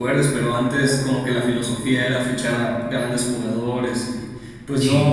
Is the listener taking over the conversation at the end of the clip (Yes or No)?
No